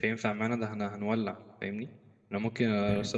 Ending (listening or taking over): listening